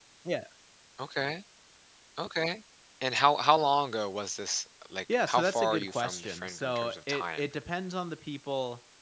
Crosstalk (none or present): present